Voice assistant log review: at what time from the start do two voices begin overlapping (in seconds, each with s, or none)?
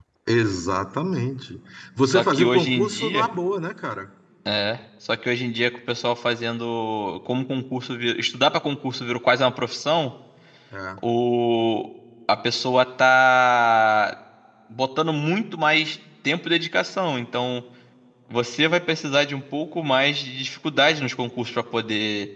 2.0 s